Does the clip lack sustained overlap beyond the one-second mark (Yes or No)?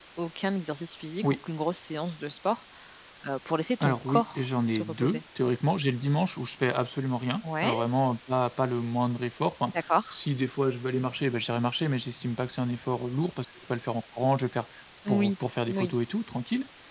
No